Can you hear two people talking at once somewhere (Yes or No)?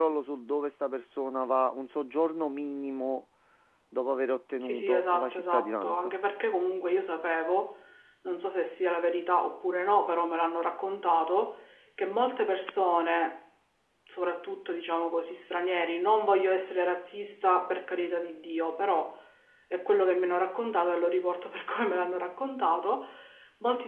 Yes